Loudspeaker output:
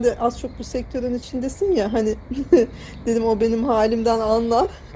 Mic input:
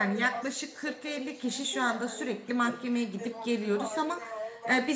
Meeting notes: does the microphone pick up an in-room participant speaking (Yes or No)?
Yes